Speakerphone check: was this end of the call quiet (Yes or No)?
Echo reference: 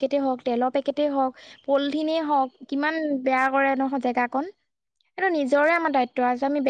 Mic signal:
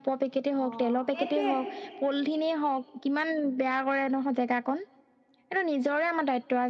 No